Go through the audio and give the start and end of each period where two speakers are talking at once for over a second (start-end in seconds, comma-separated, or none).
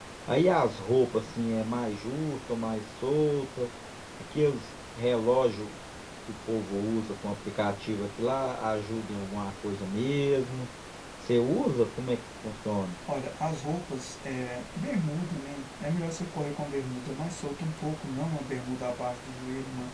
none